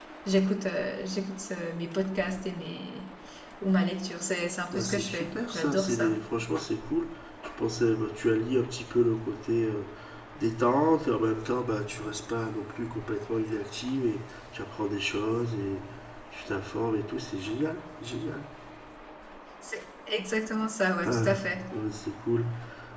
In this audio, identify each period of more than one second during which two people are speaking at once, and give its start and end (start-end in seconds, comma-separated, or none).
4.7-6.1